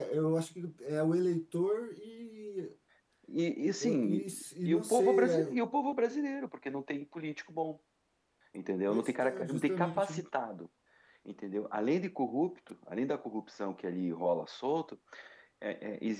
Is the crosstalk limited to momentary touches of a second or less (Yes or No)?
No